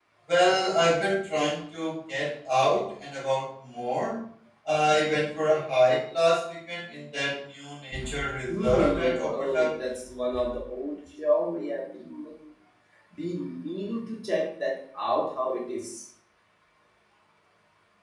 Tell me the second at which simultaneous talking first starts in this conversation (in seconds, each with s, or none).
8.5 s